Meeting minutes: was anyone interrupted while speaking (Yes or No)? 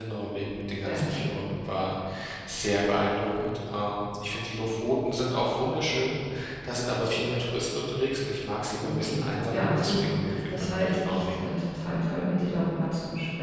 Yes